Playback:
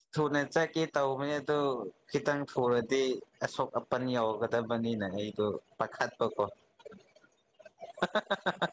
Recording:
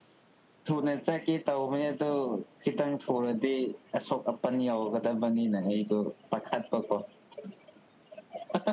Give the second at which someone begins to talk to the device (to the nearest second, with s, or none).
none